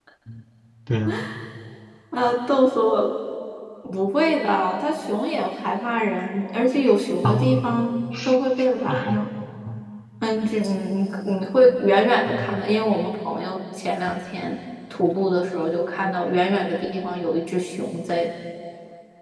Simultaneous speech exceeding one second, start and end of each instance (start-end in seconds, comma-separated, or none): none